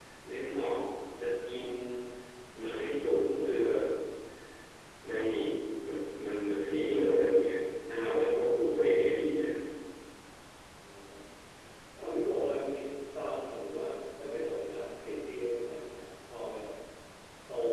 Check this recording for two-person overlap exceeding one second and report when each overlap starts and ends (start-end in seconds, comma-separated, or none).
none